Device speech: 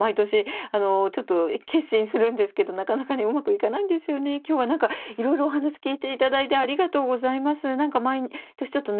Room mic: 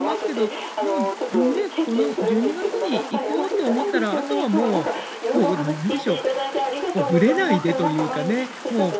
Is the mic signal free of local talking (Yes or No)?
No